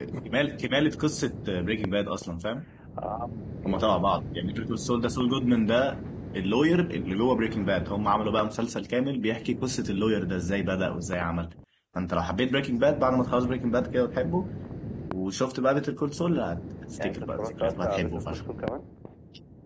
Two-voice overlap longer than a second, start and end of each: 17.0-18.4

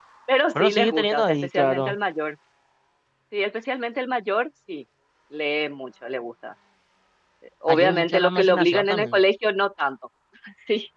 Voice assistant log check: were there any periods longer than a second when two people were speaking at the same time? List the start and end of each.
0.6-2.0, 7.7-9.2

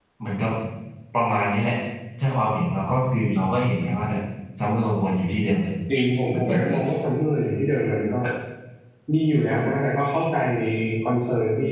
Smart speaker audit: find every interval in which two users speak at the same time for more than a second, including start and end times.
none

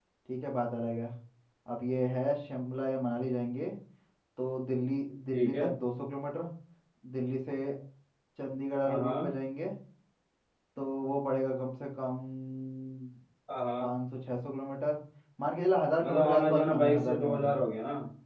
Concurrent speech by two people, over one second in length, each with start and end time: 16.0-17.6

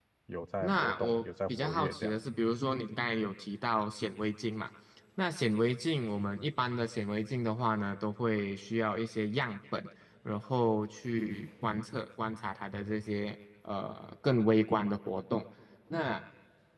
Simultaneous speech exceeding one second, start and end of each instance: 0.6-2.2

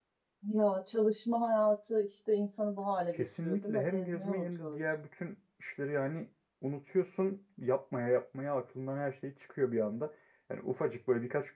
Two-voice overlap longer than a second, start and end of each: 3.1-4.8

